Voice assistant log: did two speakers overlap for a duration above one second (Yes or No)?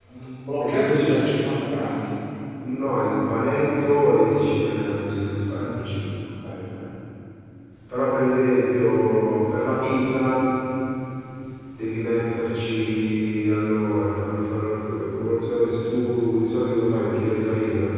No